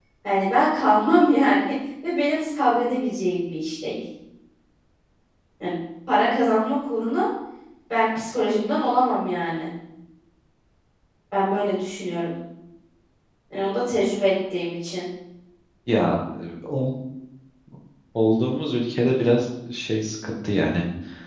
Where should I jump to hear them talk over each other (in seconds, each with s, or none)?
none